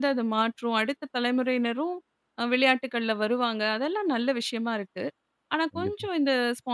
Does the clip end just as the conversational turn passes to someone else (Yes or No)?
No